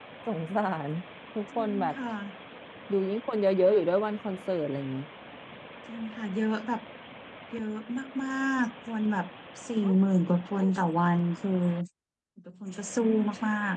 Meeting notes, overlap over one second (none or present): none